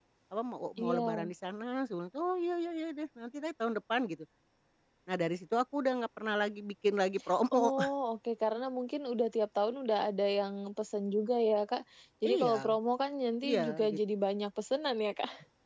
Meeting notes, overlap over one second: none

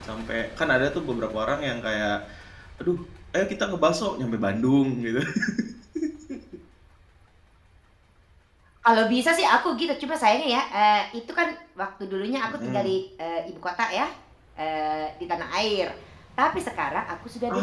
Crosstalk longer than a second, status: none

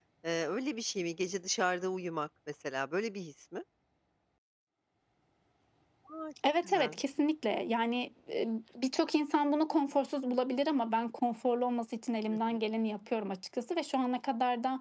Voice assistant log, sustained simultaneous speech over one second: none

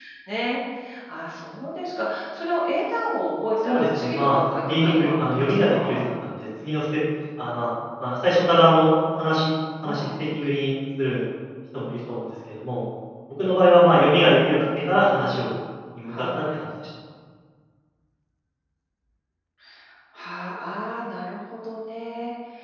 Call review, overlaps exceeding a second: present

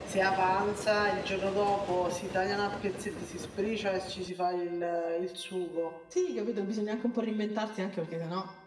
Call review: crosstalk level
none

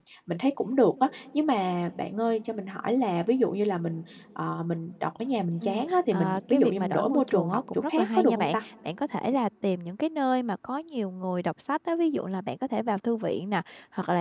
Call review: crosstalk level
present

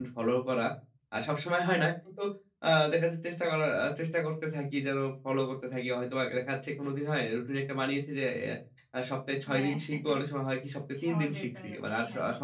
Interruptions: present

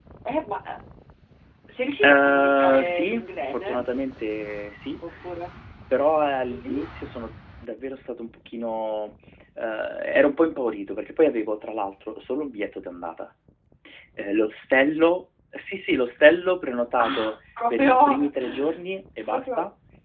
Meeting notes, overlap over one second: present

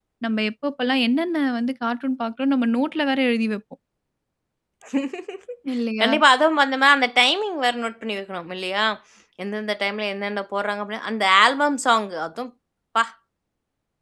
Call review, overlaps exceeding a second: none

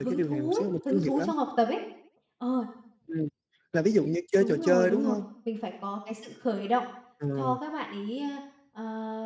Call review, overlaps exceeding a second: present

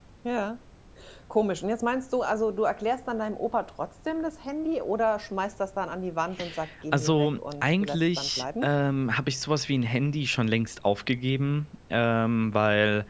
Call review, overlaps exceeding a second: present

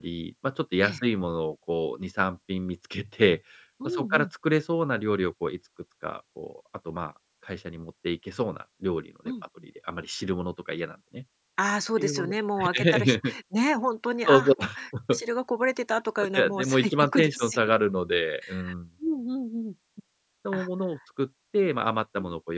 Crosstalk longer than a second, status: present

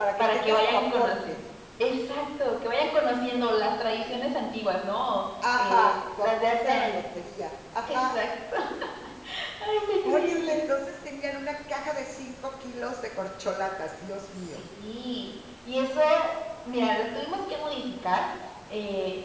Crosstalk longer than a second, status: present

